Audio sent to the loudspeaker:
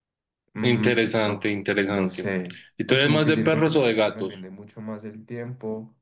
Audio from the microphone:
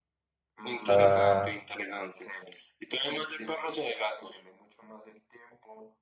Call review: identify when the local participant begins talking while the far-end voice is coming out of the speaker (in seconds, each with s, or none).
0.9 s